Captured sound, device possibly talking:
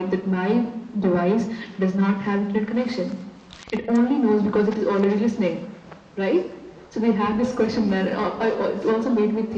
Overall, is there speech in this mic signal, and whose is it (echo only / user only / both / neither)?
both